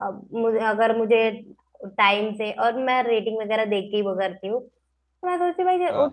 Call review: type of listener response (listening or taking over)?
listening